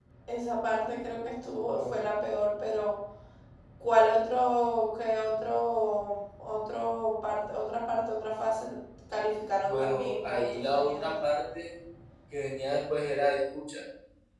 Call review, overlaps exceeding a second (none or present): present